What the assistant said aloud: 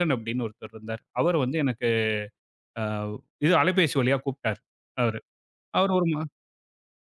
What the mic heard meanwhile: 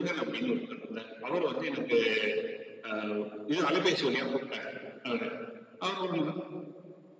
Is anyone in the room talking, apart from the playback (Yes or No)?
No